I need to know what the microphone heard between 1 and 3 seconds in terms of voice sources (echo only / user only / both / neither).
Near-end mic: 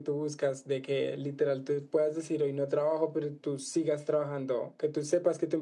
echo only